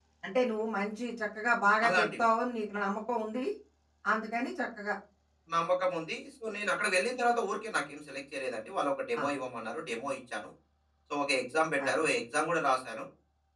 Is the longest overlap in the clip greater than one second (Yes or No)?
No